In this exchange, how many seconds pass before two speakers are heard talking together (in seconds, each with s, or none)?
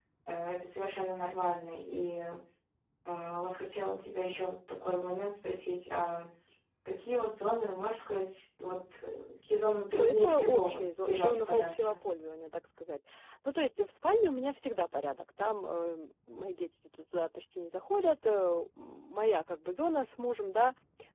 10.0 s